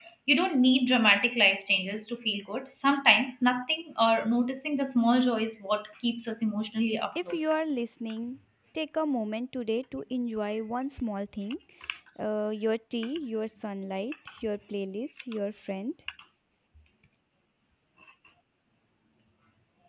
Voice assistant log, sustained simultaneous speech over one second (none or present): none